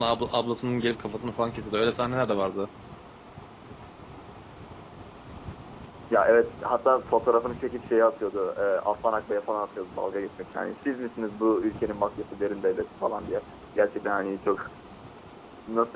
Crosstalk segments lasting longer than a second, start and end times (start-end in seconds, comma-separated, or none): none